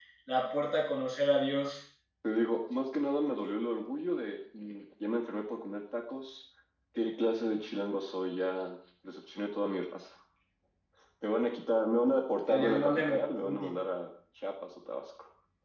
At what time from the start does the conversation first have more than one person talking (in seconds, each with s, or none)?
12.5 s